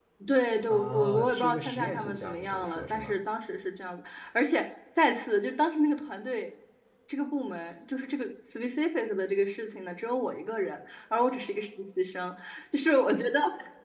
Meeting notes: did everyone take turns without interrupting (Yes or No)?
No